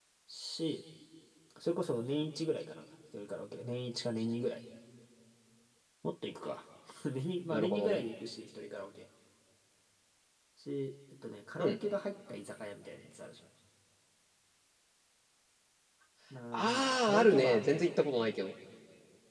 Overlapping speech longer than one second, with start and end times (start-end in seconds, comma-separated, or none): 16.5-17.9